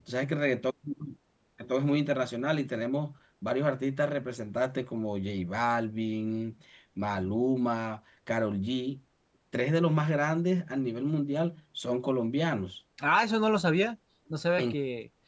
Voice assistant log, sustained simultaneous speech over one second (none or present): none